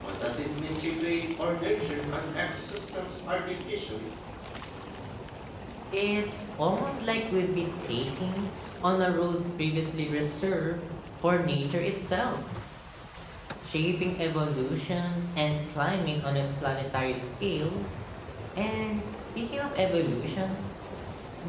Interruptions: none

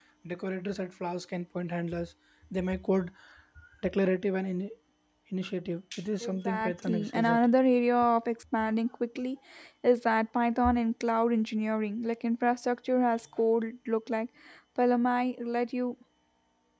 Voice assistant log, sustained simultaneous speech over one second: present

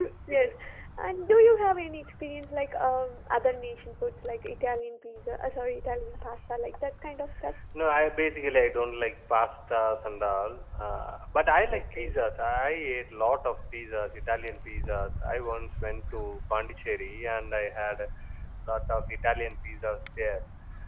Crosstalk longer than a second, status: none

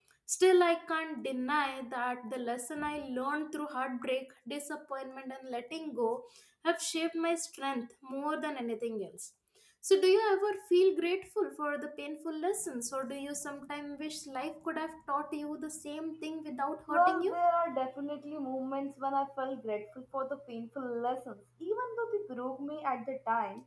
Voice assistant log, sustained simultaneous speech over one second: none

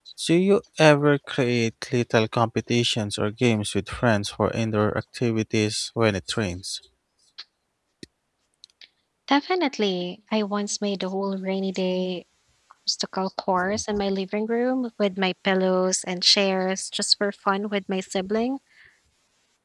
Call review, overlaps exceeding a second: none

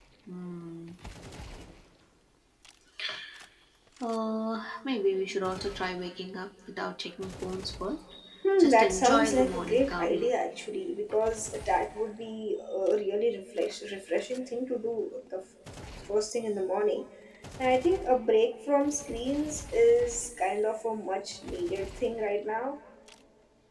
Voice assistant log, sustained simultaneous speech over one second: present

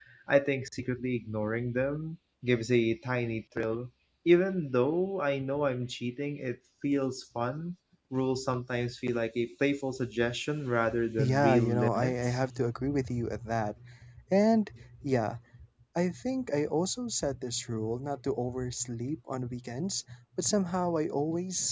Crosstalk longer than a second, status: present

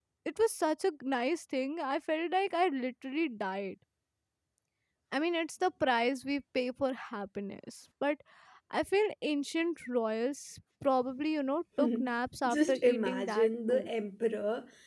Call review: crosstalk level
present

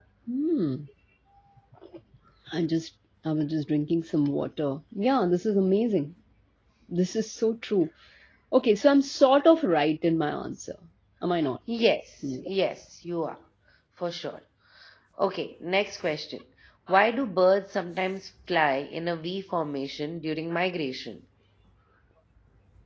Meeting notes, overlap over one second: none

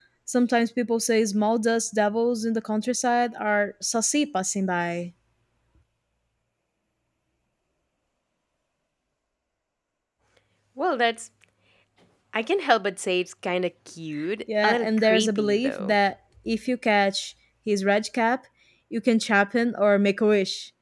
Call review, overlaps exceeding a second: present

